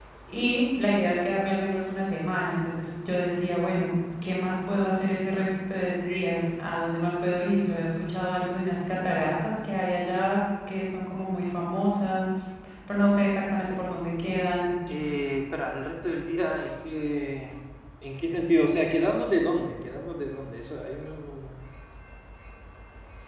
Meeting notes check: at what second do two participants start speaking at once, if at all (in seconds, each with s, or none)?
none